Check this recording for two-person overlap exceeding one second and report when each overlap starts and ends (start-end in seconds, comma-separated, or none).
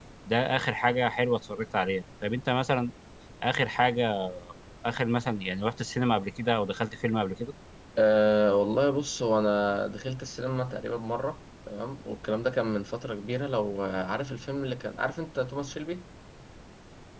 none